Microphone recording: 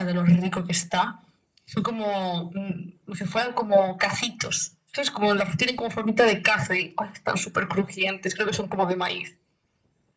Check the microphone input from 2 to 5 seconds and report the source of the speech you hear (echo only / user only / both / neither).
echo only